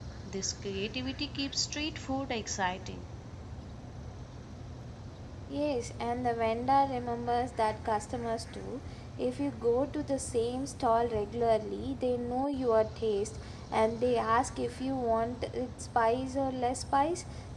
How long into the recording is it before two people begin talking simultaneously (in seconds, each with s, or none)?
none